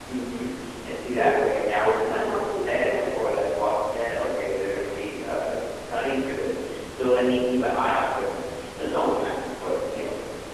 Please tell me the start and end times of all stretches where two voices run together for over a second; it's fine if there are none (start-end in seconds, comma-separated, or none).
1.8-3.1